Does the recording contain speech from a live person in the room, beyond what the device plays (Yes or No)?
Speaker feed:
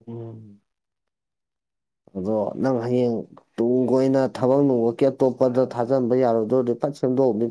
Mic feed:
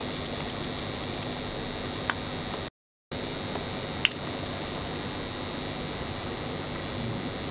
No